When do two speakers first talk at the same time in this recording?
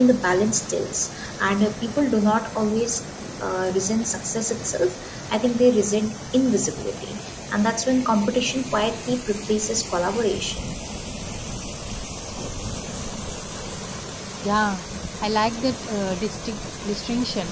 none

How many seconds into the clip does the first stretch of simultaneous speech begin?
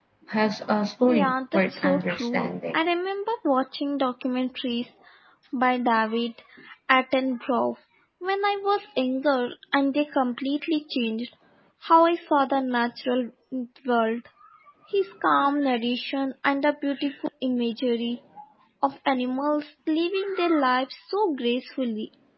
1.1 s

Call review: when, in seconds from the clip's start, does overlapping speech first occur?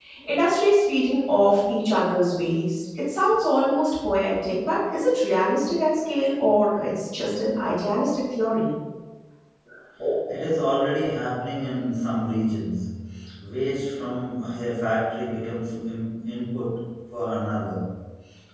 none

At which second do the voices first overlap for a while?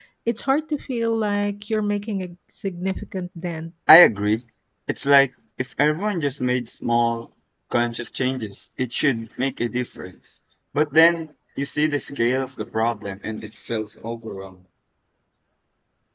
none

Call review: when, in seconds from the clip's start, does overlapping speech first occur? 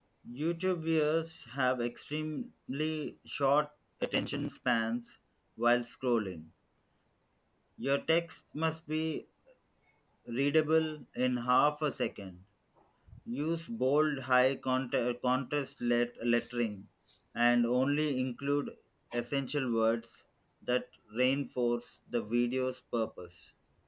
none

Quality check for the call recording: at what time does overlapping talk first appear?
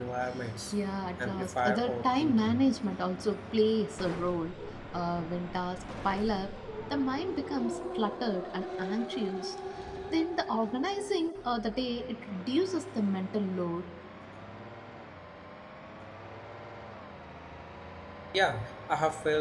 1.2 s

